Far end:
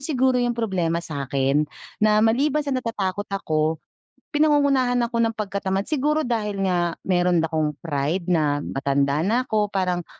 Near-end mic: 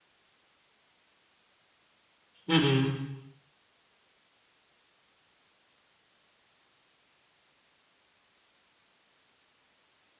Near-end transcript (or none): Mm.